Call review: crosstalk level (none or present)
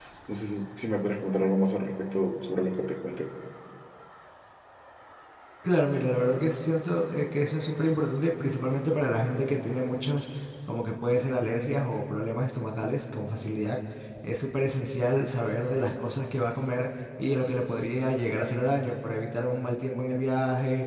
none